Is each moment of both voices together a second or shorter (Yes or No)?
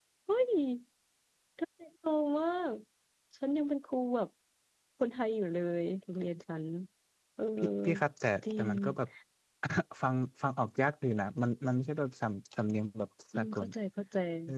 Yes